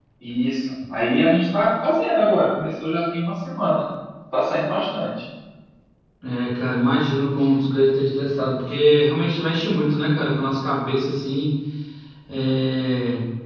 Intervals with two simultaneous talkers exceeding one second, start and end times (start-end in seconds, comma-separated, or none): none